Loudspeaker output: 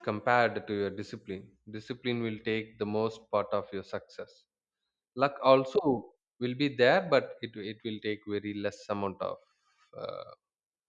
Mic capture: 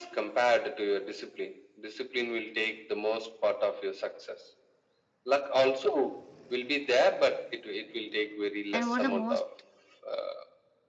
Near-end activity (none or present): present